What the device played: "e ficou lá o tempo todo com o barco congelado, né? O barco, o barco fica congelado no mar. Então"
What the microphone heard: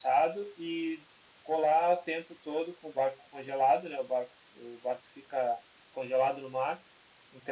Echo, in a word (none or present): present